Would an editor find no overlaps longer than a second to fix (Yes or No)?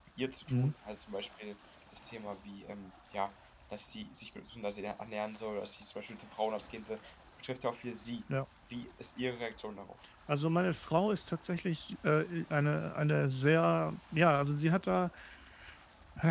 Yes